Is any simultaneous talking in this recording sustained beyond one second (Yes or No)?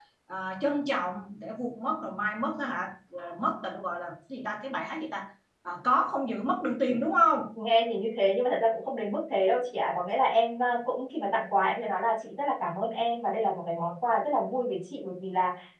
No